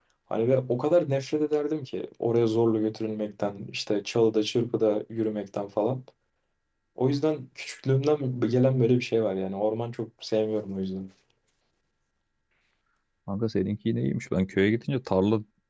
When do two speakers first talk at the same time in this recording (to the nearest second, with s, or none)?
none